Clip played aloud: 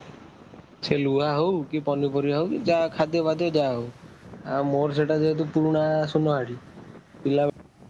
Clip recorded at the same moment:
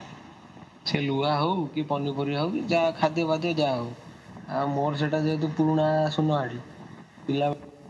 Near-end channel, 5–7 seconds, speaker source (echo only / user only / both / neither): echo only